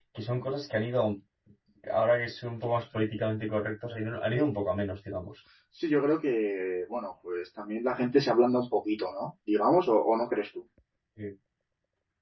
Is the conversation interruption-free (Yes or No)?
Yes